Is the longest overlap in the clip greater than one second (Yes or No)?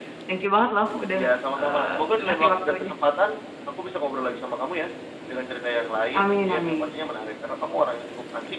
Yes